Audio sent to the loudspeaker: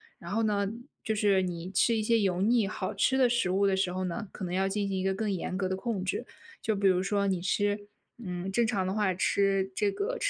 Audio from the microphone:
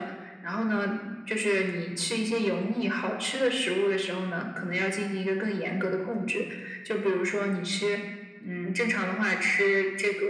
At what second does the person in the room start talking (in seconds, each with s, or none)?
none